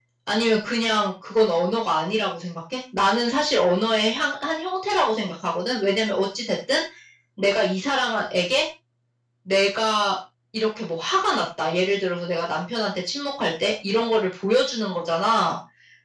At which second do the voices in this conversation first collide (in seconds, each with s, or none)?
none